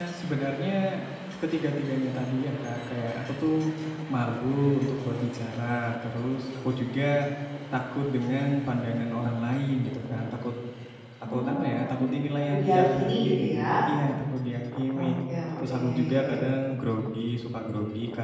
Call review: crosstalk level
present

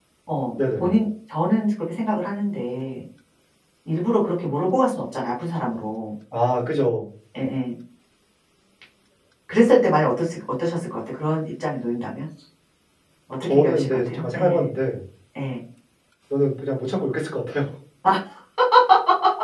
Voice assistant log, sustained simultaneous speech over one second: present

